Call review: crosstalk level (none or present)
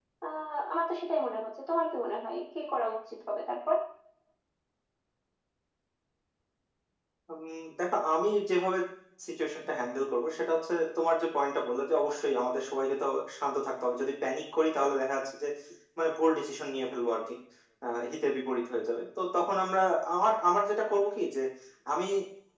none